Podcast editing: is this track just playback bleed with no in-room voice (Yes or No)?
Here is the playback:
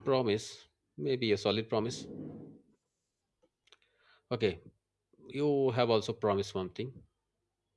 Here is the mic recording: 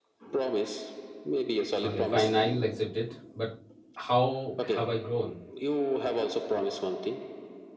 No